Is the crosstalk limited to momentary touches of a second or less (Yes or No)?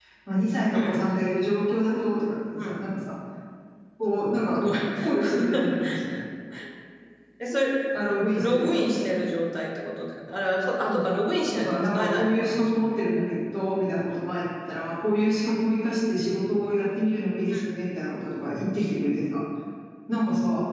No